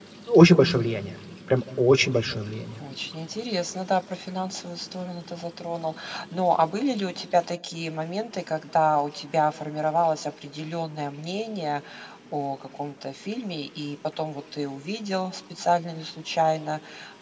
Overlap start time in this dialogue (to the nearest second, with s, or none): none